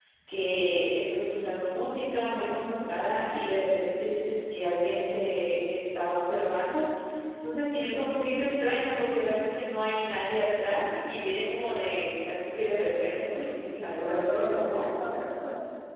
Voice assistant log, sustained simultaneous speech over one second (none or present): present